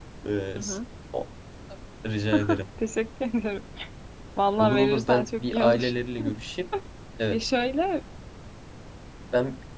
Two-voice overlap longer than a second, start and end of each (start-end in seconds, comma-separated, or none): 4.6-5.9